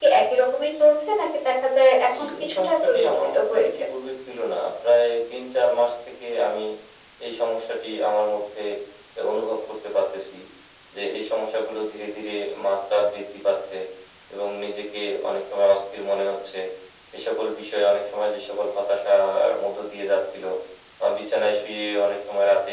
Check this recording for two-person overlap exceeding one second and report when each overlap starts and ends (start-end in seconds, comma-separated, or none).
2.2-3.8